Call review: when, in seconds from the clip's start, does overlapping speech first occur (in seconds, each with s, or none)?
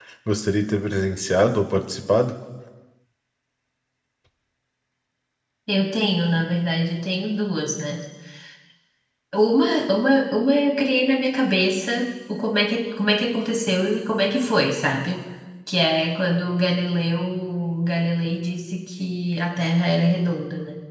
none